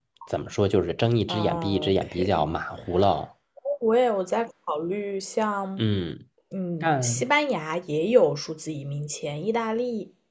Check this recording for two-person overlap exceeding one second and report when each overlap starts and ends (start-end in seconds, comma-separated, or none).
1.3-2.5